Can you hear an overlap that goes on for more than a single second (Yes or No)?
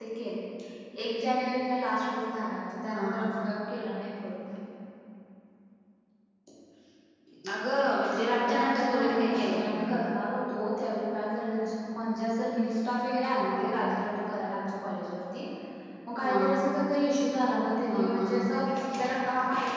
Yes